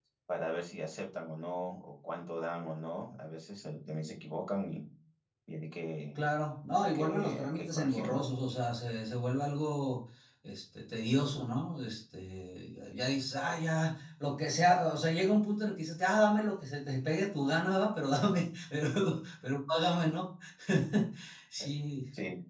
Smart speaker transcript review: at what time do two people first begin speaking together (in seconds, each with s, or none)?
6.8 s